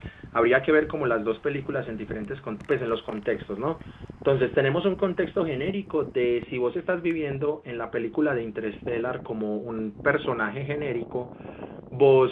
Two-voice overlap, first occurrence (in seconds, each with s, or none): none